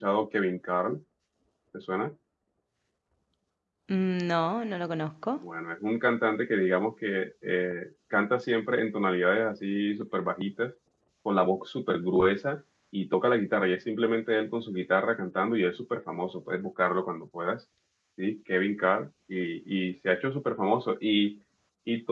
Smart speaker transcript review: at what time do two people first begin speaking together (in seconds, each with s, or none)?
none